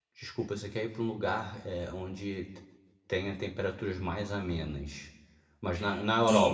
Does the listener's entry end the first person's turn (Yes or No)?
Yes